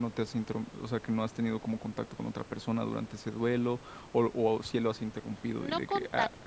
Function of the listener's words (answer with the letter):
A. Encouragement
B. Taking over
B